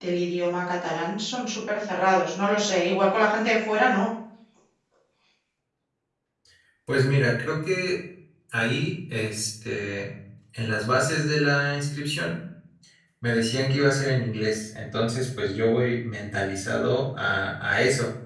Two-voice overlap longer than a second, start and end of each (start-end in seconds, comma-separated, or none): none